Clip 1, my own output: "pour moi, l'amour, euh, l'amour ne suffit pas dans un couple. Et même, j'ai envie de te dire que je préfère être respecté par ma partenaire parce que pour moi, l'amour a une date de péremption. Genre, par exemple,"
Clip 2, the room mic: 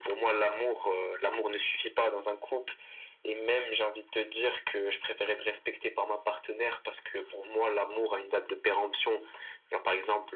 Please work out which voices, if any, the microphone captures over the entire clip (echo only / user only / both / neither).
echo only